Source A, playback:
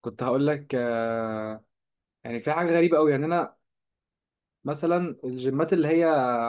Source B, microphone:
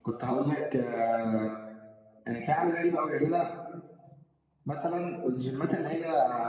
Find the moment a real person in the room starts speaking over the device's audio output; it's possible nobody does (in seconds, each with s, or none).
none